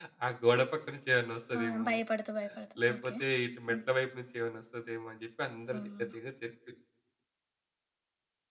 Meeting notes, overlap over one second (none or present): none